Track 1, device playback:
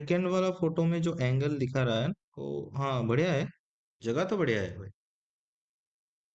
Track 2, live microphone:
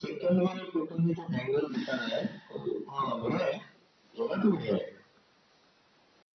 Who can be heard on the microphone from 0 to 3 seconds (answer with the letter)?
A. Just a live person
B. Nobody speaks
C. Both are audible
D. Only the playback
D